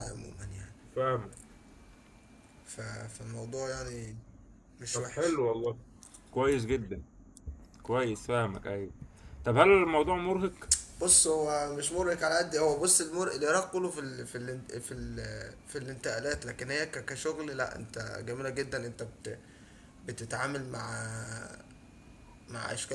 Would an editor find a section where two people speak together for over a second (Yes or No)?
No